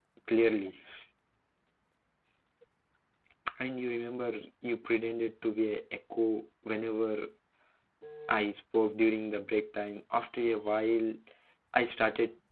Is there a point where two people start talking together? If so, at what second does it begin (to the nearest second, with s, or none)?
none